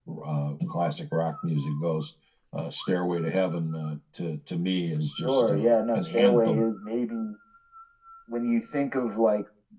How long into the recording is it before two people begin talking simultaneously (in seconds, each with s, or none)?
5.2 s